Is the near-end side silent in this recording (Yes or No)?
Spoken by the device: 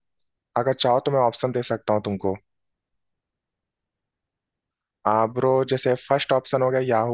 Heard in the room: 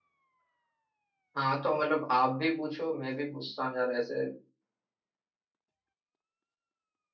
No